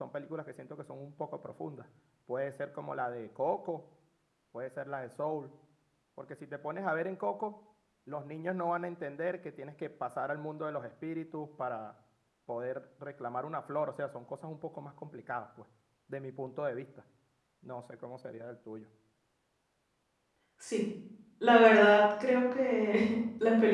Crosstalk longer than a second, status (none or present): none